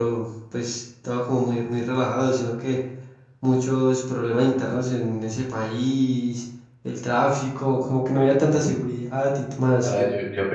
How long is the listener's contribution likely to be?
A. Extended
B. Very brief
A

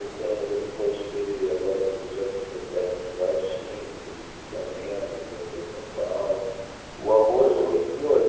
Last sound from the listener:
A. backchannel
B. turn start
A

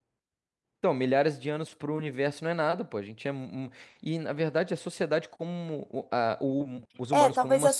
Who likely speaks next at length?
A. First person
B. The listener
B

